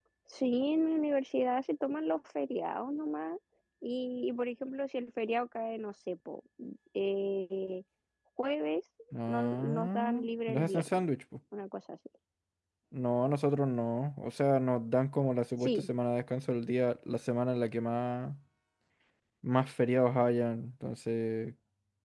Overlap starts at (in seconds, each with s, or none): 9.3 s